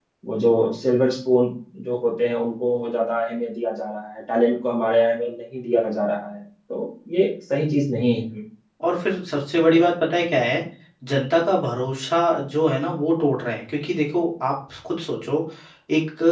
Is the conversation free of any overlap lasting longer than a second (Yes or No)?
Yes